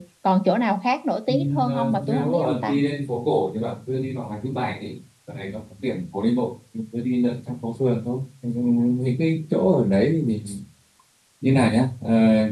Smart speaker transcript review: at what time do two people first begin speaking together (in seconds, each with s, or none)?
1.3 s